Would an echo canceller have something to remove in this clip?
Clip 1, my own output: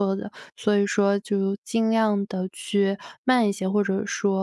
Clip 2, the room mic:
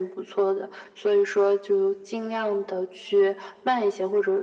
Yes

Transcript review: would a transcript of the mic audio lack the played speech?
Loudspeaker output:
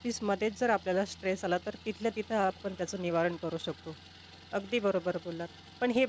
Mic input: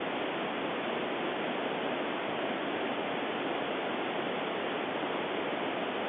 Yes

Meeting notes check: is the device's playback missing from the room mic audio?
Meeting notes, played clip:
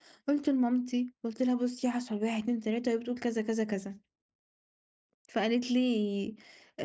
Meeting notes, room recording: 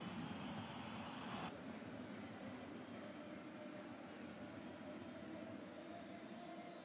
Yes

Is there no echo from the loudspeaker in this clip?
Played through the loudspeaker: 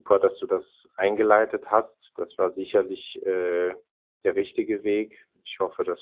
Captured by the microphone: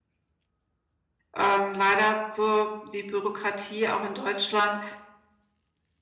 Yes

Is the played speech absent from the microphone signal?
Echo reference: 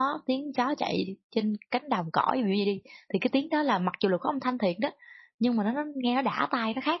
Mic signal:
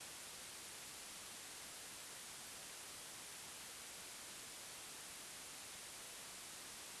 Yes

